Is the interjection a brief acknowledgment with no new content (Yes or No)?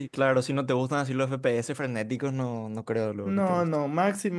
No